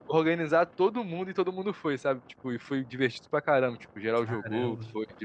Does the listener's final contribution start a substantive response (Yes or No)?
No